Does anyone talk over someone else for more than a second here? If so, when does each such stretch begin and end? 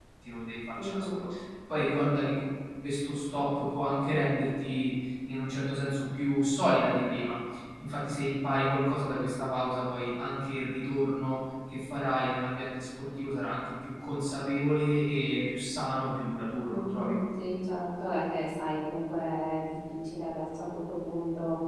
none

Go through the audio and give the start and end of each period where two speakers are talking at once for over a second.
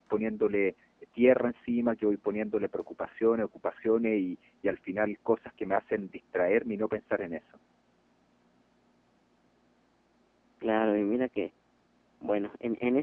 none

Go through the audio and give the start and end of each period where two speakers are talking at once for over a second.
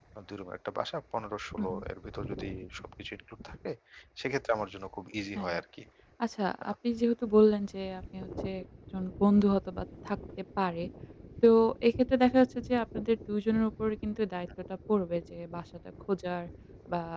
none

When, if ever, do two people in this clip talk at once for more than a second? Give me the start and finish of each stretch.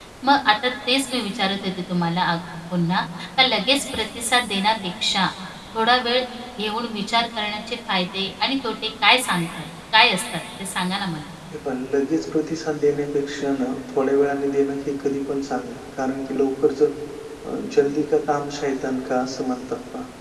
none

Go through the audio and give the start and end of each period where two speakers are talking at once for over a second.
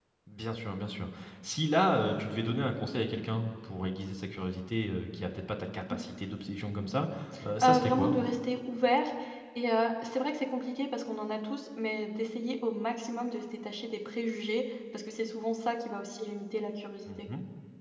none

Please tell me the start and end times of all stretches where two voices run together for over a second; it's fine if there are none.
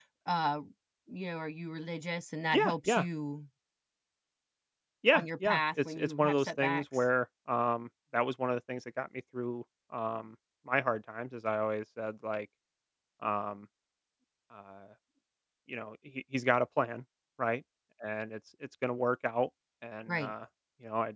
5.1-7.0

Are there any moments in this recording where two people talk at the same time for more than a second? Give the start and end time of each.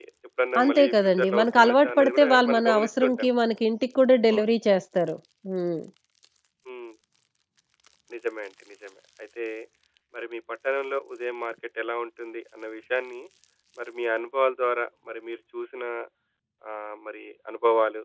0.6-3.3

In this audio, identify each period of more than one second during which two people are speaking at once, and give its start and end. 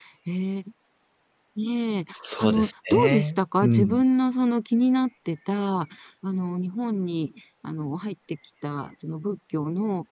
2.1-4.0

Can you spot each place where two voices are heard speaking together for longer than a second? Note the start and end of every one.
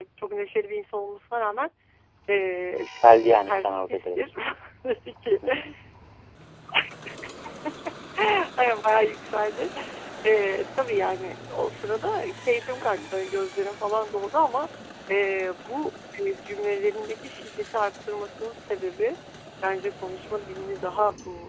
2.8-4.2

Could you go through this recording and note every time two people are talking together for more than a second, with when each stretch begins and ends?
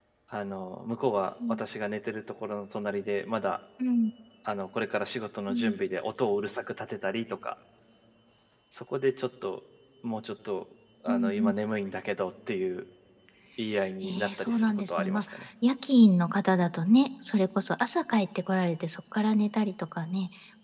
14.0-15.5

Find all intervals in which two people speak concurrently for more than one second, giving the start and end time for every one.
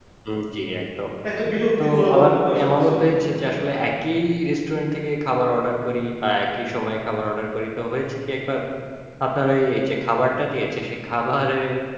1.8-3.8

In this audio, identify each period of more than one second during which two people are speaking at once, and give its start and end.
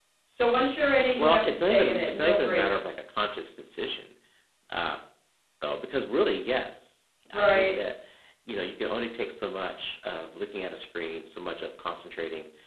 1.2-2.9

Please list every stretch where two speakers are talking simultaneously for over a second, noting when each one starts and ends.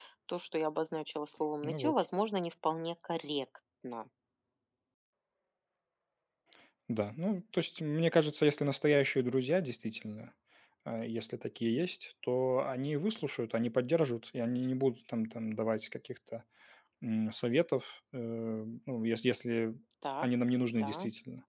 none

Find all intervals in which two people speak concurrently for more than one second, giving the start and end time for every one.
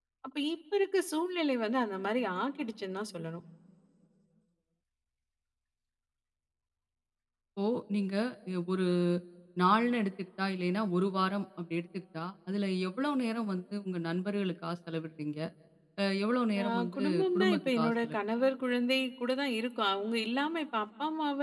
16.6-18.2

